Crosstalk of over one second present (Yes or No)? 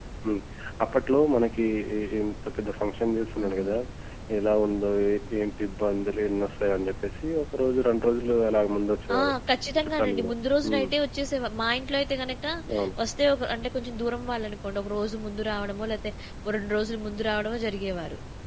No